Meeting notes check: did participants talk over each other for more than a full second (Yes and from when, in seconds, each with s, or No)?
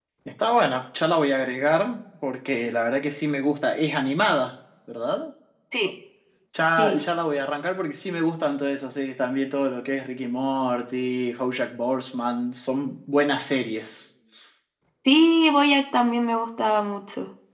No